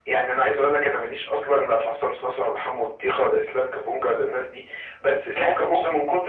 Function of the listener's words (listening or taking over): listening